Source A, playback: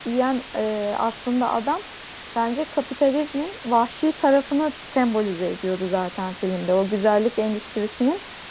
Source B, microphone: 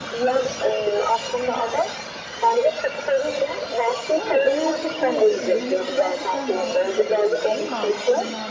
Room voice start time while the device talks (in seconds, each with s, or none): 4.2 s